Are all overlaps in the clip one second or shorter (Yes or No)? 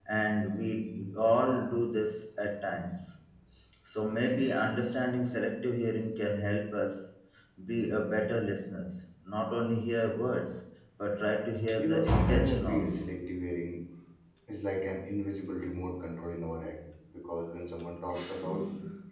No